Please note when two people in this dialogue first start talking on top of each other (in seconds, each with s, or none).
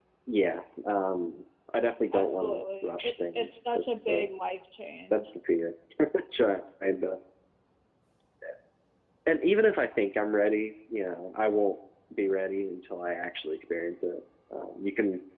2.1 s